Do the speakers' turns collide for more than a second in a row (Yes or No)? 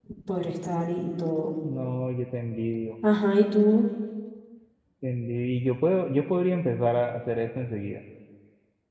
No